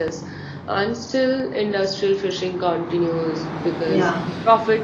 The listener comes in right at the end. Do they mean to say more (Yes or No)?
No